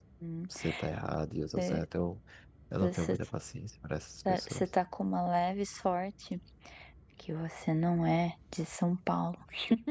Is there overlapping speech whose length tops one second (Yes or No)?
No